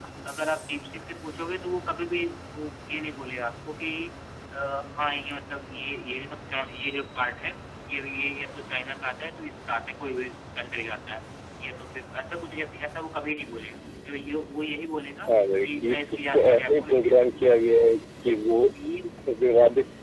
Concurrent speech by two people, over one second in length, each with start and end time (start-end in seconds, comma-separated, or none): 15.6-17.2